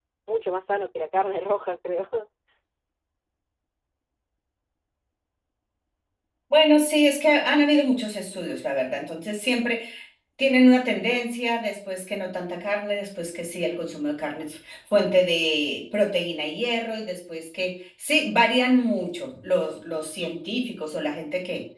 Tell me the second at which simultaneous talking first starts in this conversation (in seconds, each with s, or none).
none